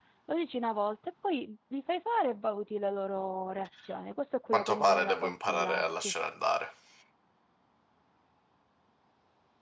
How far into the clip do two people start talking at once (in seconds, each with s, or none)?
4.5 s